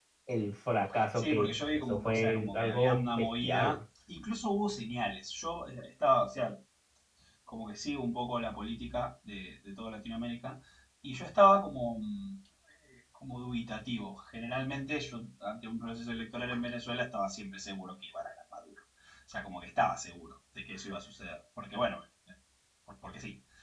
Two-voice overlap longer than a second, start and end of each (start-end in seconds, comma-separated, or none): 1.1-3.8